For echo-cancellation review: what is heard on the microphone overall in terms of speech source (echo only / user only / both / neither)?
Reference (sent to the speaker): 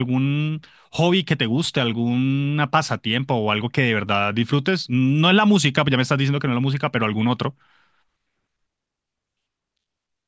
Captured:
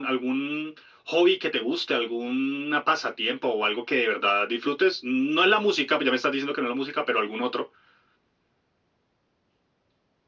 echo only